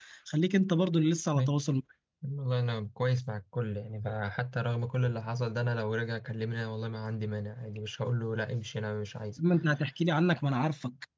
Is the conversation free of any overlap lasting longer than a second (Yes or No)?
Yes